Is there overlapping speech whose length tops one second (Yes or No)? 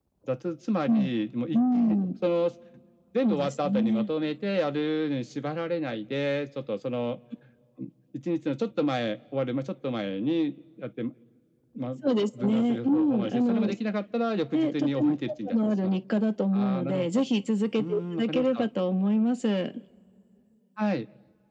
Yes